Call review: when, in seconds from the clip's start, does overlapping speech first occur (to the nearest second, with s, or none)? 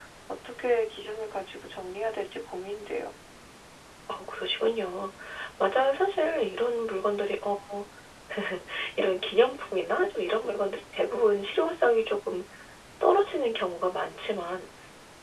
none